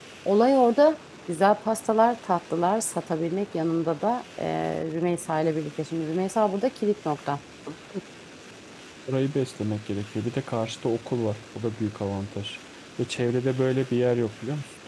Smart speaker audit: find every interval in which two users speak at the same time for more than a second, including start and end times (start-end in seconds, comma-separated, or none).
none